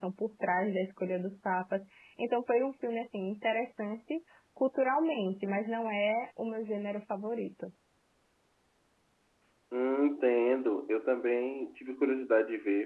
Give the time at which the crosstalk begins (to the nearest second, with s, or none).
none